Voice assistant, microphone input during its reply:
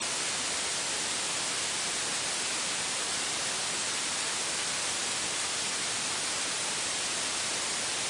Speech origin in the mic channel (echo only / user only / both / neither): neither